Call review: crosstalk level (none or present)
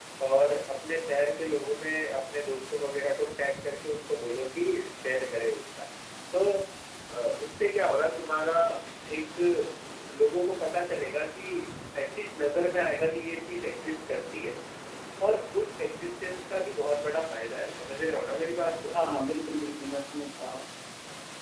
none